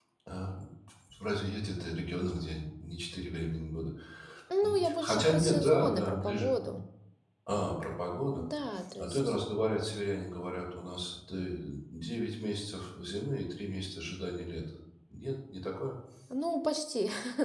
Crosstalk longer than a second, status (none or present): present